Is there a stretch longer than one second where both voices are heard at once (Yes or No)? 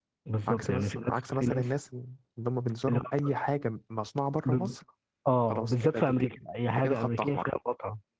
Yes